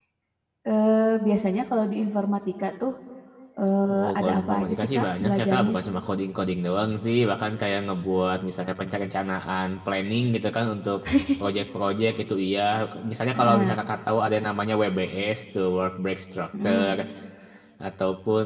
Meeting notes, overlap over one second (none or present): present